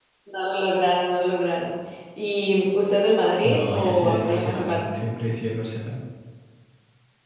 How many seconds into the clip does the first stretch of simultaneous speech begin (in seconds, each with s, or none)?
3.4 s